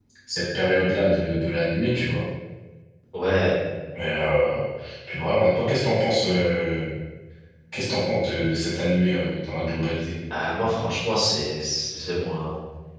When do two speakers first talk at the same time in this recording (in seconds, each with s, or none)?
none